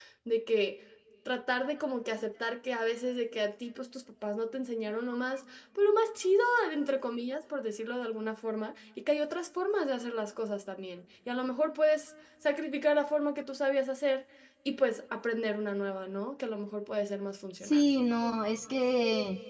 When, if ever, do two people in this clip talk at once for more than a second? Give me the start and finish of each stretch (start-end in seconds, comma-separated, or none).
none